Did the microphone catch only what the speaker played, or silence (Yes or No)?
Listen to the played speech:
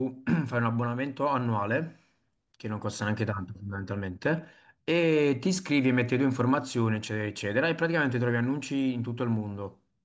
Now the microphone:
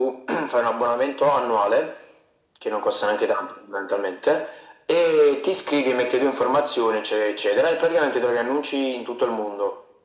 Yes